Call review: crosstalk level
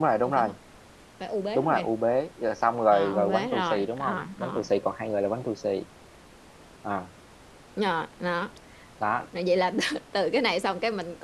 present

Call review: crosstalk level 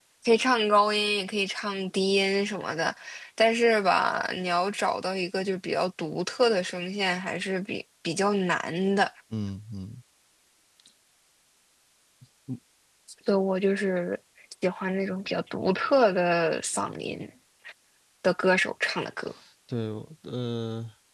none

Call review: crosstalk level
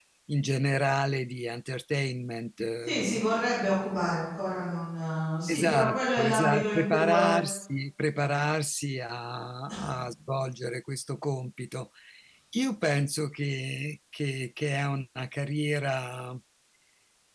present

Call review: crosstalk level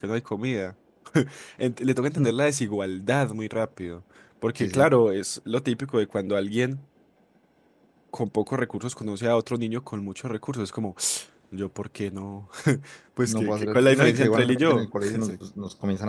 present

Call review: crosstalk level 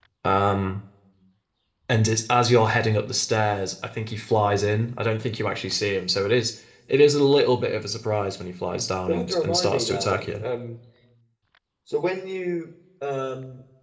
present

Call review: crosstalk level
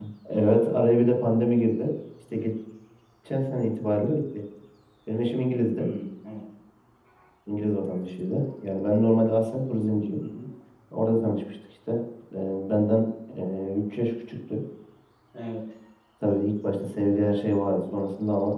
none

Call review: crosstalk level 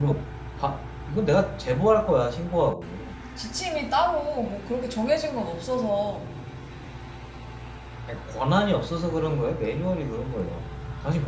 none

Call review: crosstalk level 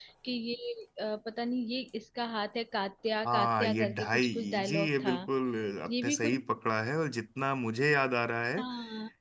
present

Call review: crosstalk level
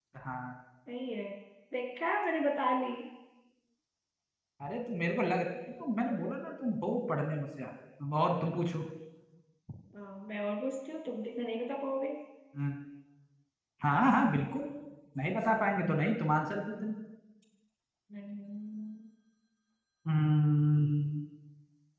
none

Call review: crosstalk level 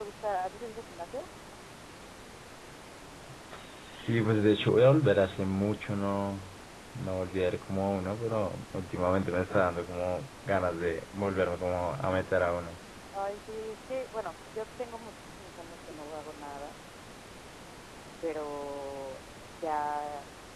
none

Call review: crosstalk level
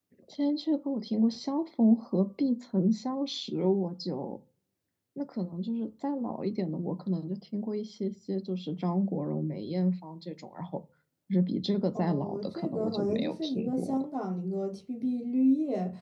present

